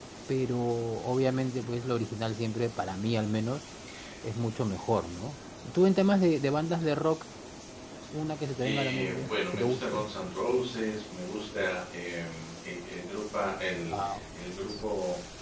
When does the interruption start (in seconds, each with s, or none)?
8.6 s